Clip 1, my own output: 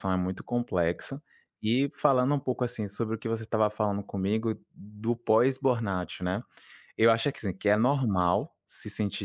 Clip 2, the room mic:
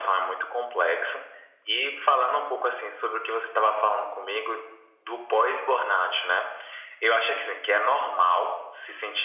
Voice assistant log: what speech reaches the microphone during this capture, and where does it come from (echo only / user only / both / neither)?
echo only